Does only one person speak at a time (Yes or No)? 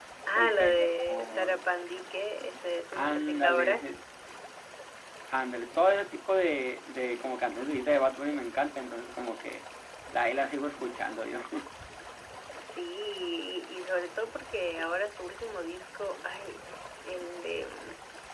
No